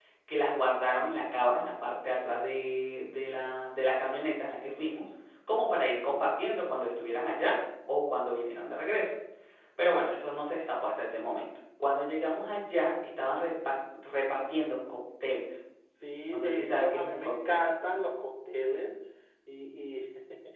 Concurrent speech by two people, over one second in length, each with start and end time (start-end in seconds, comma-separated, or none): 16.3-17.7